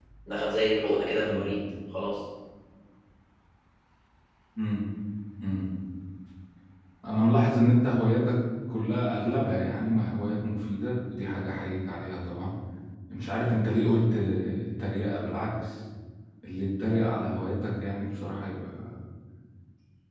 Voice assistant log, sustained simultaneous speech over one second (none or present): none